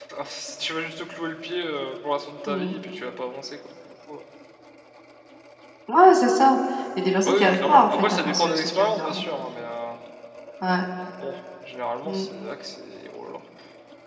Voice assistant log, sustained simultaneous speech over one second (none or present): present